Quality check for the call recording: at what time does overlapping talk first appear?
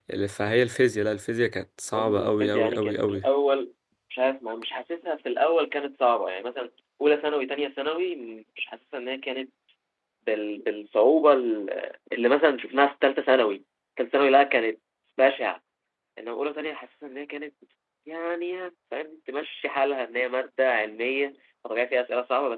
1.9 s

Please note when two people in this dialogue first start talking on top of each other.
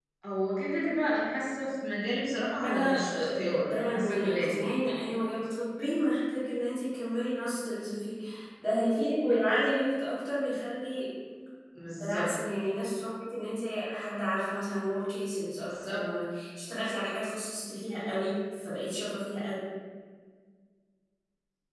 2.6 s

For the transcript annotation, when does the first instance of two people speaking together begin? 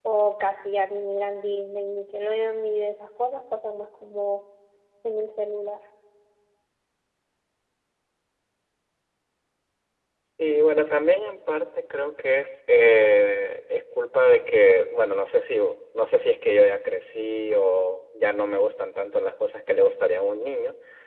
none

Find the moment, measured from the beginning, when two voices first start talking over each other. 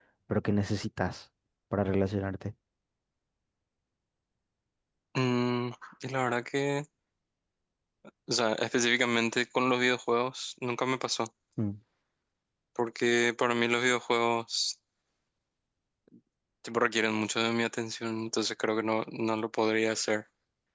none

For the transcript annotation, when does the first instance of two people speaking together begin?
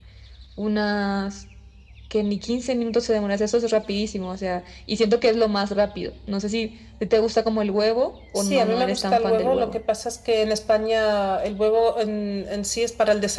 8.4 s

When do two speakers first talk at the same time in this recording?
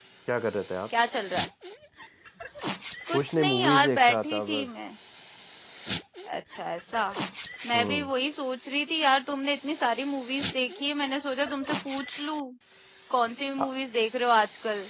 3.1 s

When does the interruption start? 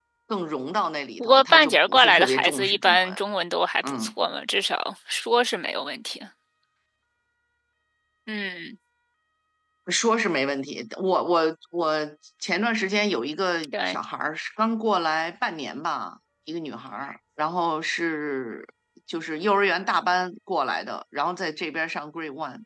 1.2 s

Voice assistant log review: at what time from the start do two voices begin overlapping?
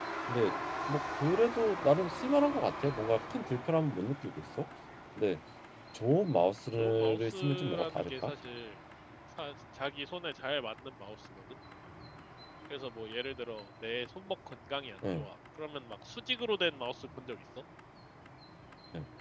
6.7 s

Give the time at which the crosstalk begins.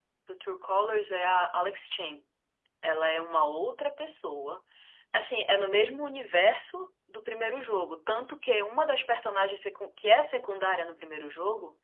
none

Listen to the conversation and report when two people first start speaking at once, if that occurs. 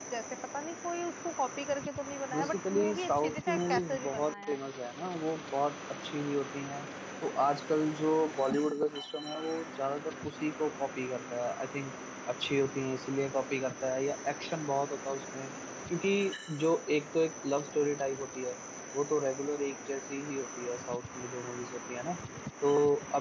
2.3 s

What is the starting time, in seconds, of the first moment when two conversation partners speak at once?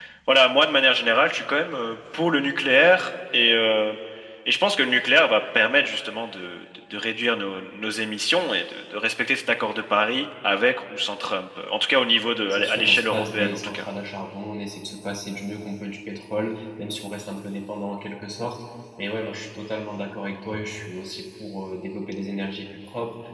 12.4 s

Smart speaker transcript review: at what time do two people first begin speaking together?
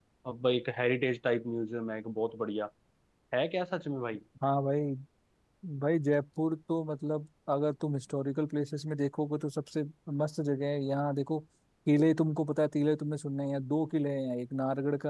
none

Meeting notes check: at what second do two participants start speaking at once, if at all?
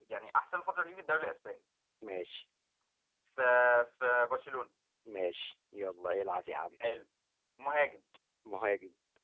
none

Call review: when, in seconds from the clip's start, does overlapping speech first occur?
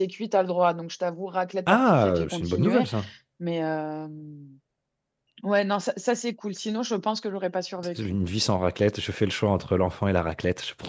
1.7 s

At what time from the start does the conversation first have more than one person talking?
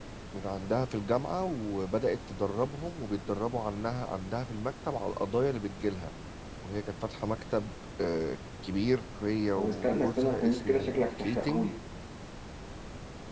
9.6 s

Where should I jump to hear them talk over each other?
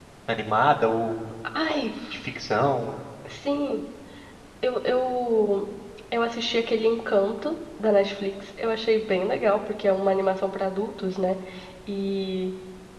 none

